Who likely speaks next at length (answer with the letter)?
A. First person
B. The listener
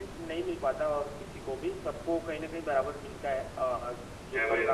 A